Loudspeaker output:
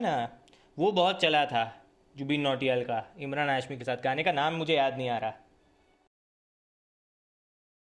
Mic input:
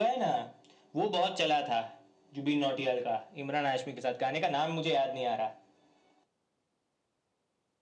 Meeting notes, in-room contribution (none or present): none